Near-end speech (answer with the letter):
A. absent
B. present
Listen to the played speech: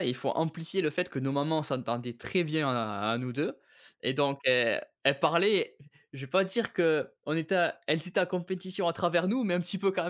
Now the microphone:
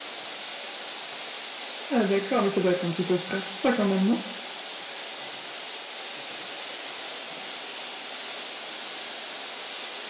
B